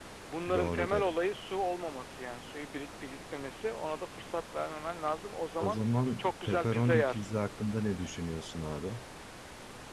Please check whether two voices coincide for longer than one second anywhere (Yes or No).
Yes